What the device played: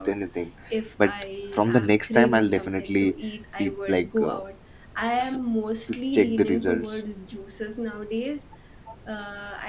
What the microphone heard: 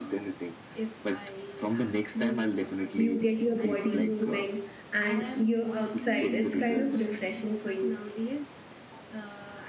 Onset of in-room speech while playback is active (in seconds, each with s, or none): 2.9 s